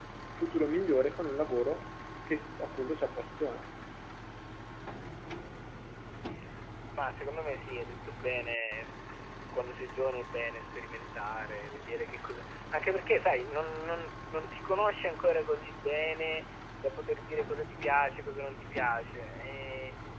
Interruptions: none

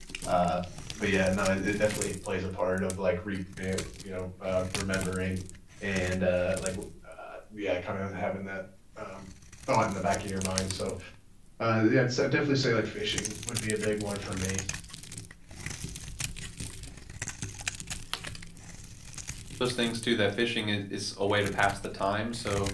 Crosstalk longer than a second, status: none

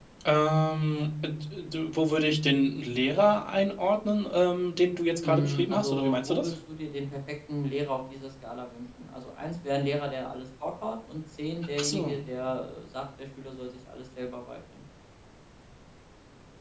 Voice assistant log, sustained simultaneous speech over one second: present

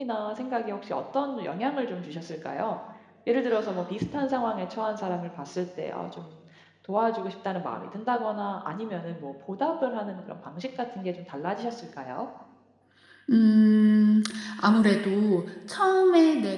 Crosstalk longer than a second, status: none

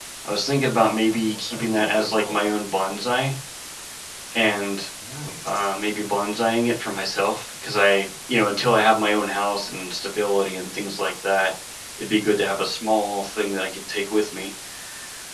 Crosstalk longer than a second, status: present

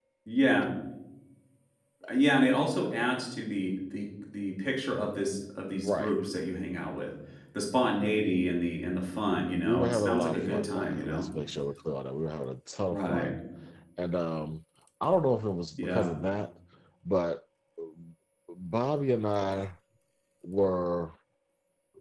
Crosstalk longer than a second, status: present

